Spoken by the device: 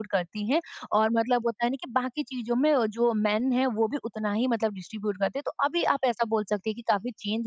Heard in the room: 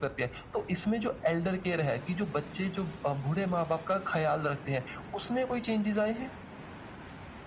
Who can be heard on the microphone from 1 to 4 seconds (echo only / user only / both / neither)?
user only